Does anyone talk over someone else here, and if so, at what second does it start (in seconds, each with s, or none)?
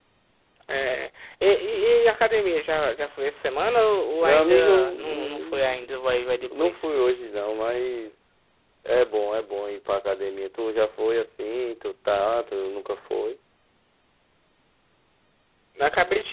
4.2 s